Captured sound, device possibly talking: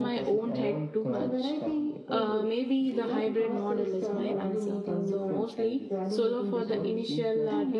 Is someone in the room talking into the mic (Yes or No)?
Yes